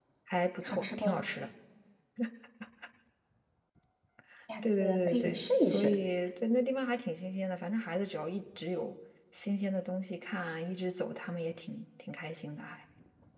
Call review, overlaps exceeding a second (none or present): present